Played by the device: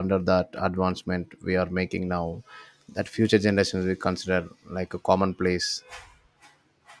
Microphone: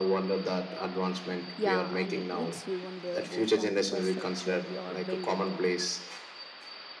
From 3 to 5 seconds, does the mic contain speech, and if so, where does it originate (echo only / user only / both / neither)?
both